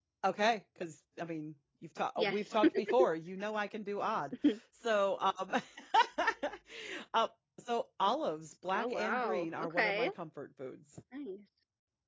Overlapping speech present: Yes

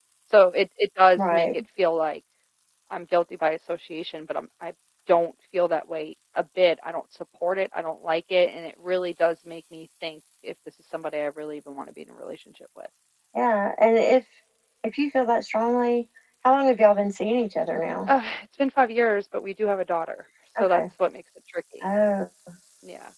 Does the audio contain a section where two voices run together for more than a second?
No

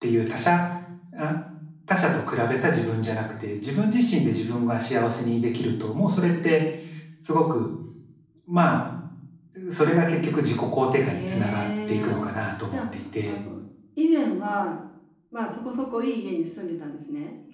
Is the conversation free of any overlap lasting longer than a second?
No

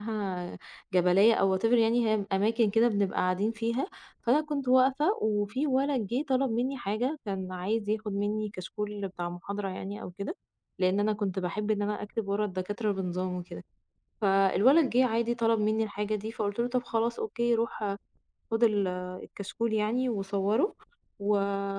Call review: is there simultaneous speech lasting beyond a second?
No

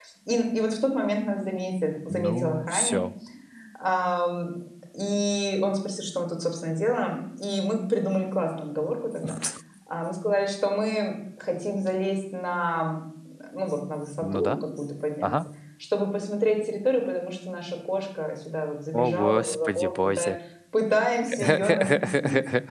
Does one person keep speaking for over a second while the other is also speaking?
Yes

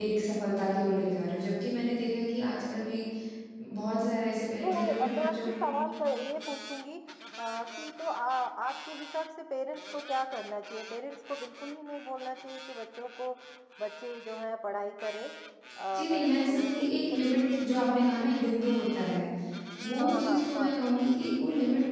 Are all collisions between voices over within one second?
No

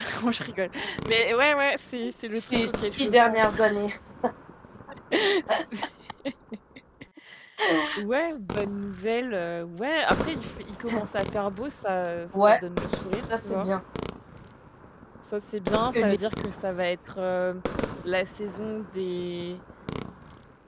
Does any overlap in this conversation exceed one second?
Yes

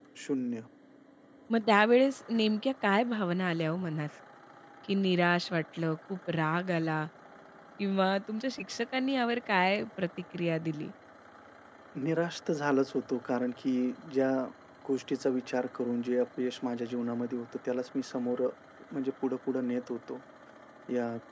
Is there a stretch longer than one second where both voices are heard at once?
No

